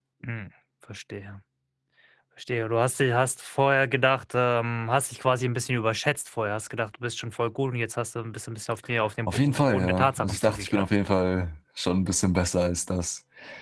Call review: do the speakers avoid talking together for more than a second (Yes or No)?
No